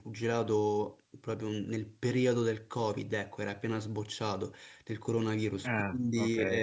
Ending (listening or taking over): listening